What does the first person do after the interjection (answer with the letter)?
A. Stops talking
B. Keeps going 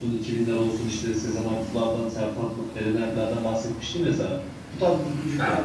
B